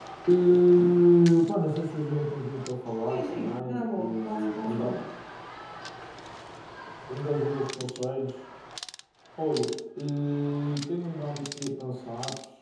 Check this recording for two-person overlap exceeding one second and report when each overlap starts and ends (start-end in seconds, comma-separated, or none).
3.0-4.9